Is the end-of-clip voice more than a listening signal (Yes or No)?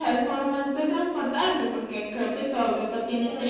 Yes